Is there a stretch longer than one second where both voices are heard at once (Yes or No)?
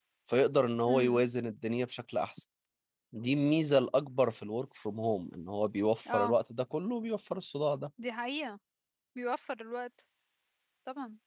No